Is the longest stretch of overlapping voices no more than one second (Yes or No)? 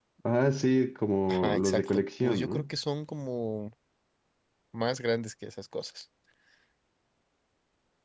No